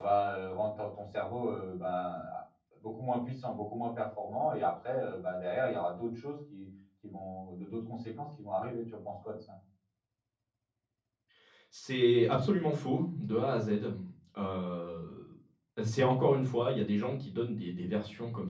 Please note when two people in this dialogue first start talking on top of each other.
none

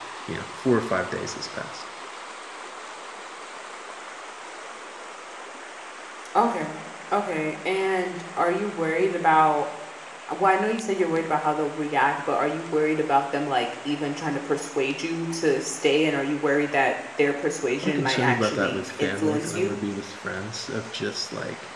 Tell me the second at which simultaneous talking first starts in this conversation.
17.8 s

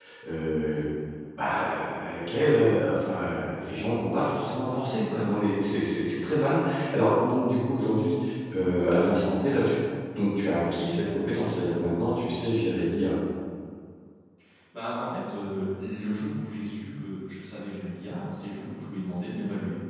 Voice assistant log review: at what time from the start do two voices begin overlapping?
none

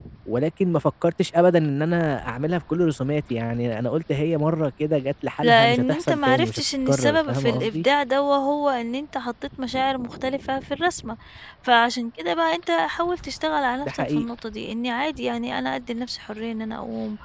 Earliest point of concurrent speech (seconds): 5.4 s

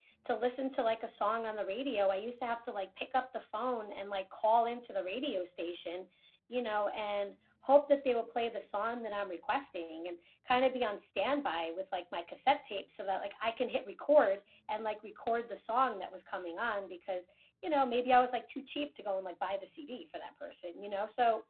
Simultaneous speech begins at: none

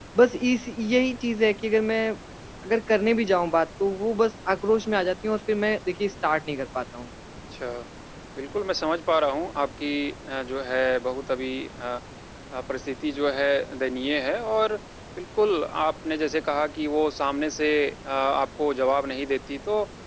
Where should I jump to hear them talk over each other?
none

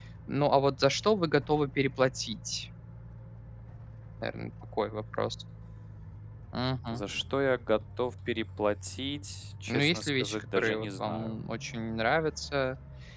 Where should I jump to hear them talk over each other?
9.7 s

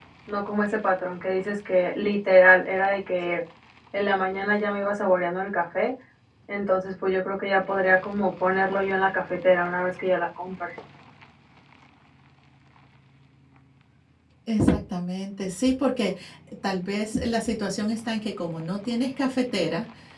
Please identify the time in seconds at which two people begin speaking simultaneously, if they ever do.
none

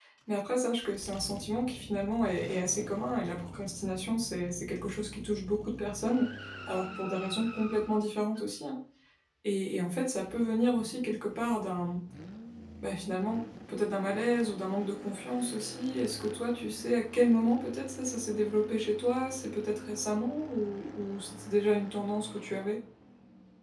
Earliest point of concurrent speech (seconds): none

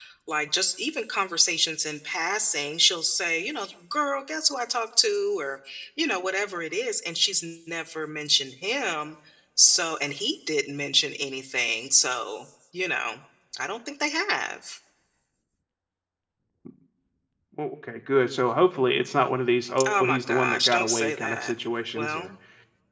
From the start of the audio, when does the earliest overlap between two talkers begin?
19.9 s

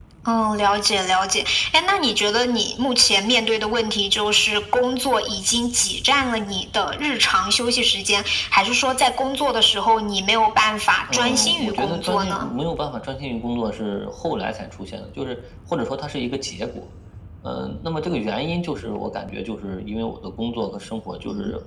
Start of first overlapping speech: 11.1 s

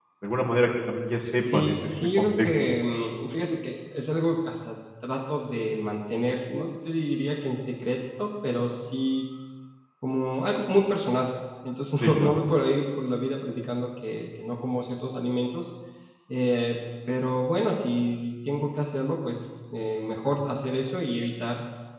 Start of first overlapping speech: 1.4 s

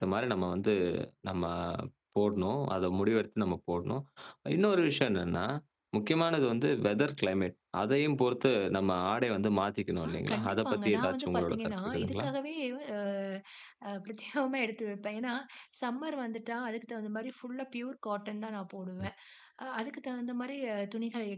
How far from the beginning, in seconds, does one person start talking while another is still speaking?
10.0 s

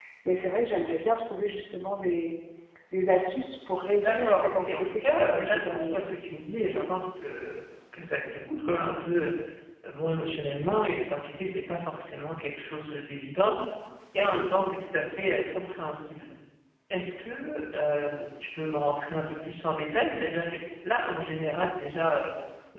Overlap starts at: 4.0 s

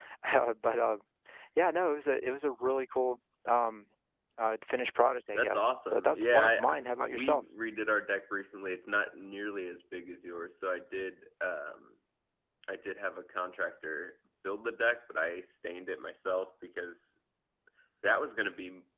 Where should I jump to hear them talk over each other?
5.3 s

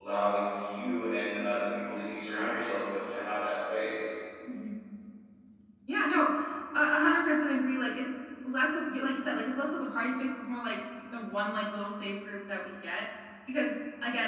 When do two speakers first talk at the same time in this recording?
none

